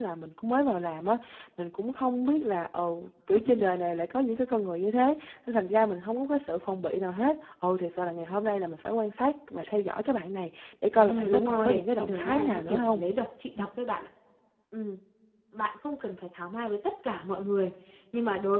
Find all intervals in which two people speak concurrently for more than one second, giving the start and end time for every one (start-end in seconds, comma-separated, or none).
11.0-13.0